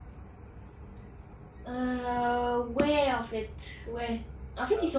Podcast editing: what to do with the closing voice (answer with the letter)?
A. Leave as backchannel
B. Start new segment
A